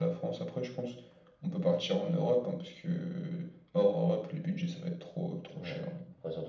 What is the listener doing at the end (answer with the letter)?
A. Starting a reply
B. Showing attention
A